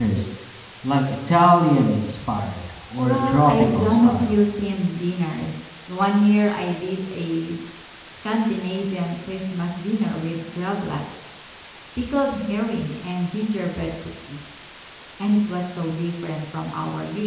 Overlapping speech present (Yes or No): Yes